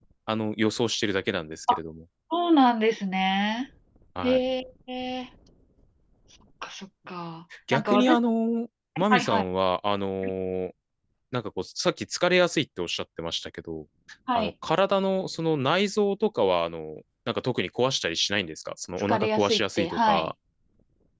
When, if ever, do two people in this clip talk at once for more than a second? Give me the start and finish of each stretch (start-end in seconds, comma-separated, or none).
19.1-20.3